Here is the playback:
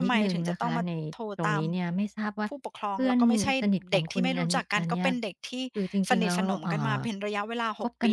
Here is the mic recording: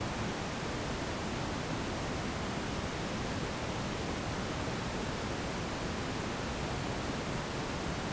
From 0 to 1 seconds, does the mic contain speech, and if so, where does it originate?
neither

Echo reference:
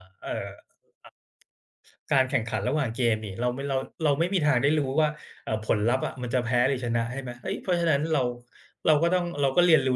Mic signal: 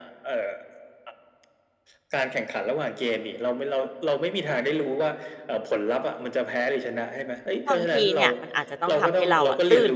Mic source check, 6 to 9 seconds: both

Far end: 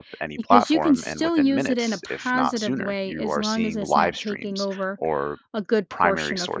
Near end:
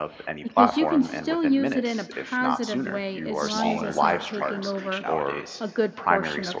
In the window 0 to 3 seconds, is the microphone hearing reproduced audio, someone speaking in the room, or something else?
echo only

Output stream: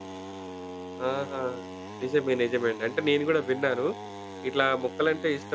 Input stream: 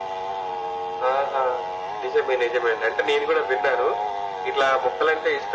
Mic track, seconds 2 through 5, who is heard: echo only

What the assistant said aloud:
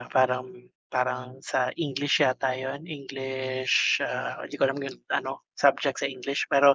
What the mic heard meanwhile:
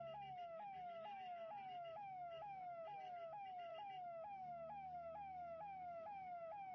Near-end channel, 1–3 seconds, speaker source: neither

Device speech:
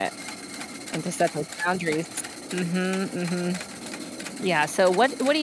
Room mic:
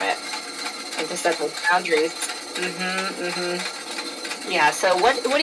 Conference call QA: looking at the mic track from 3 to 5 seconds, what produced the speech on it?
echo only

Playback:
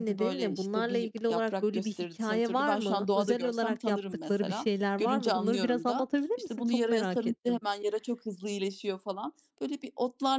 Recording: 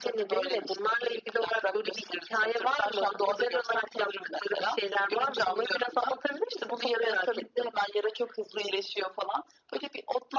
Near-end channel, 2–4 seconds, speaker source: echo only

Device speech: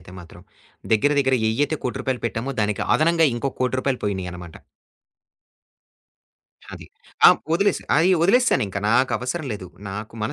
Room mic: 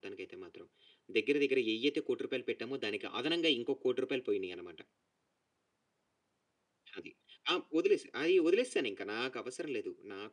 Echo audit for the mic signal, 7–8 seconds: echo only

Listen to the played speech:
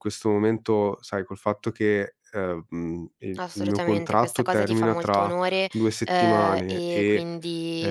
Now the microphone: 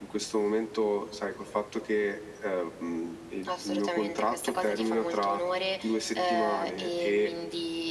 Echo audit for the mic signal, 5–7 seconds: echo only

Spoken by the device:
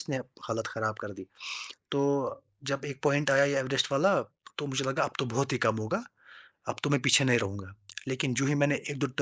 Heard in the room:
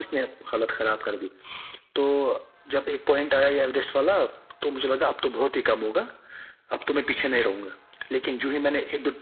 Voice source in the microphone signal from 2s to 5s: echo only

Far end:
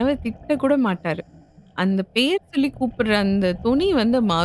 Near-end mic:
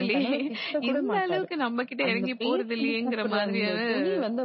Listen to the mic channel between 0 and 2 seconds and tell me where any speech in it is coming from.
both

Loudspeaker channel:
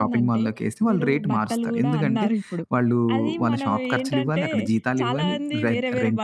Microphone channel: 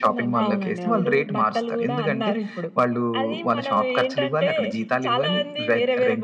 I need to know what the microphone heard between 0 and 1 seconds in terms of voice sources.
both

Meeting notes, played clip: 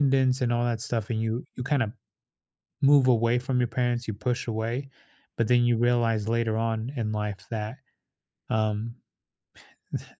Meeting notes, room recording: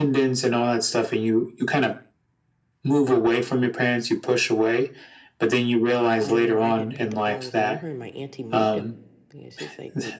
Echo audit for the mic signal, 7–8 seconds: both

